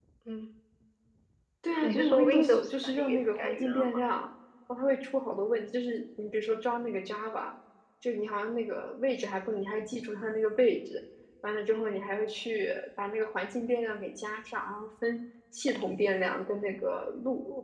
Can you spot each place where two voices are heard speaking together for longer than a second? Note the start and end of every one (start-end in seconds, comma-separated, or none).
1.8-4.0